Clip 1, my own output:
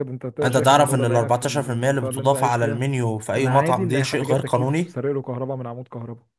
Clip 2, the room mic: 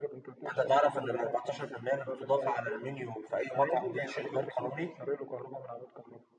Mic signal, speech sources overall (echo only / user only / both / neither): echo only